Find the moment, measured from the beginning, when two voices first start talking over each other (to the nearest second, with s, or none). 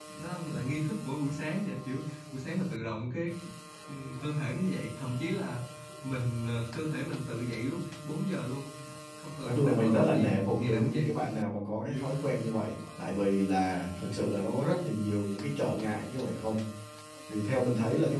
9 s